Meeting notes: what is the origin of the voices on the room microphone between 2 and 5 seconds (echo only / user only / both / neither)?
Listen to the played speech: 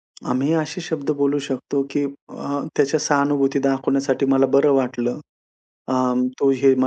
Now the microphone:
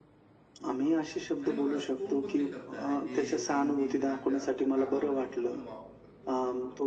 both